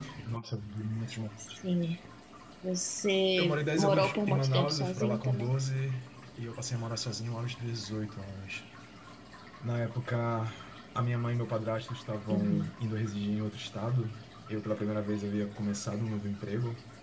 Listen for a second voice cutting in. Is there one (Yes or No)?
Yes